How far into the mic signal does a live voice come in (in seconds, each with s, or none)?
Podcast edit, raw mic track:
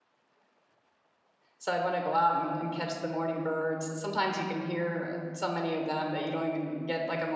1.6 s